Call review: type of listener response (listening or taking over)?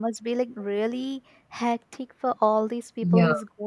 listening